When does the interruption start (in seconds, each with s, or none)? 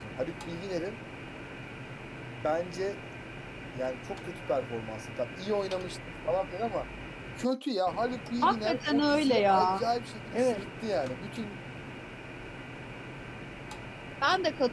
8.4 s